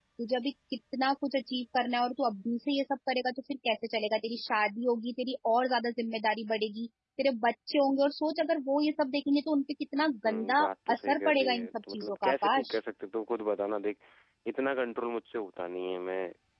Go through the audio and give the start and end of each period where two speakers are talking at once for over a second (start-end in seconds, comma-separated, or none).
10.2-12.8